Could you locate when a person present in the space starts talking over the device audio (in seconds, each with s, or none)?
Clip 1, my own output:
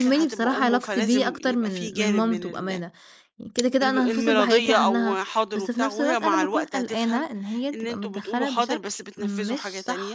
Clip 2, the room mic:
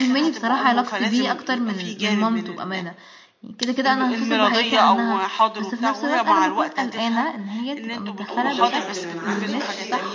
8.3 s